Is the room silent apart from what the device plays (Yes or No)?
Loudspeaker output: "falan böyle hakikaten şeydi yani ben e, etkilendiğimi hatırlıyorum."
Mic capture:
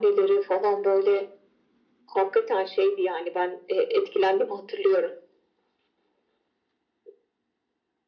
Yes